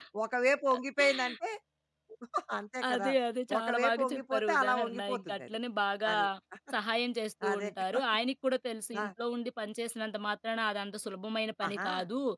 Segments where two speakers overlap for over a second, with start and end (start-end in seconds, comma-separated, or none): 3.6-5.6